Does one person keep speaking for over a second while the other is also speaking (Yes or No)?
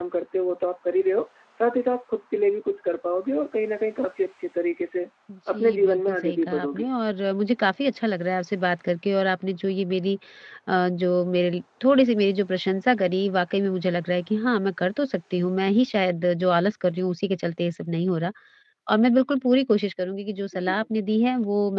Yes